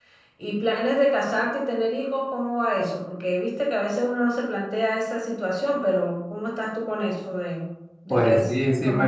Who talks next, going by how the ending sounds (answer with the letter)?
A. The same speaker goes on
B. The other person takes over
B